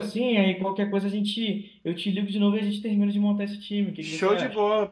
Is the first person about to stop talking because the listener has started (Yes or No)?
Yes